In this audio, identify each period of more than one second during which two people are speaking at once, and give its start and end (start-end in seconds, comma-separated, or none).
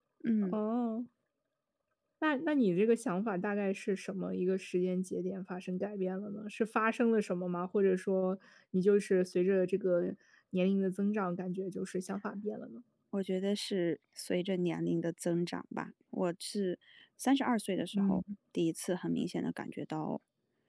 none